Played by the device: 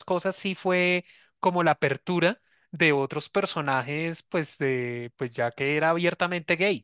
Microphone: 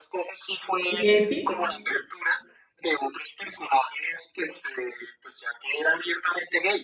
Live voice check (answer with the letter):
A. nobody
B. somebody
B